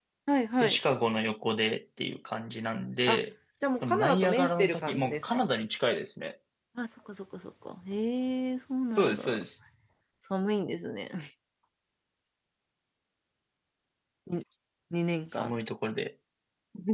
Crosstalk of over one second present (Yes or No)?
Yes